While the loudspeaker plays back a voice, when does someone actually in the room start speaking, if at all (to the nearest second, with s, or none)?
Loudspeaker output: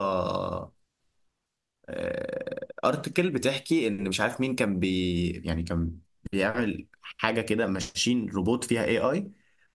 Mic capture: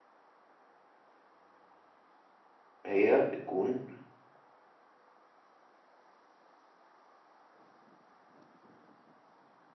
3 s